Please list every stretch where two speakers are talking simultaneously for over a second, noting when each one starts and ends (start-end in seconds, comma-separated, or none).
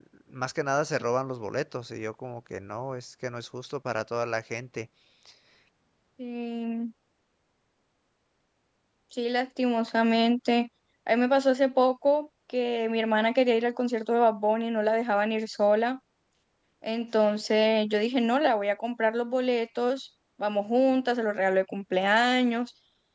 none